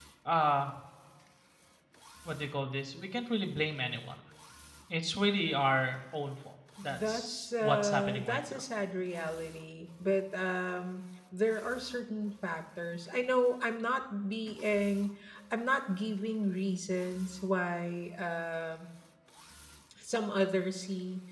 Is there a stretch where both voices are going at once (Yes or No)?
Yes